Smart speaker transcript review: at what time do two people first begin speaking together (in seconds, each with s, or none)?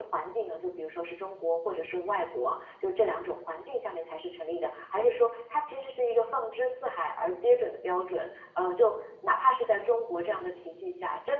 none